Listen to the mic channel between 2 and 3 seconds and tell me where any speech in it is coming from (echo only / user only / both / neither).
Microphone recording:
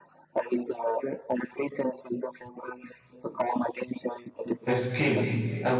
echo only